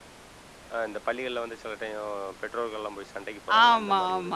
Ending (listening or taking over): taking over